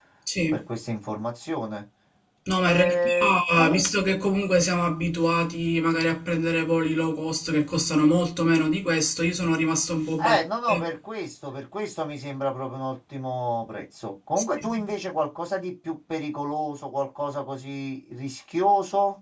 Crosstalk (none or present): present